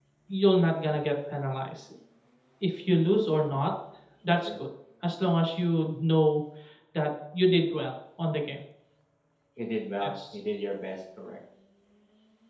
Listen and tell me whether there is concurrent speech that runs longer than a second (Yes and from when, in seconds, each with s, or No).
No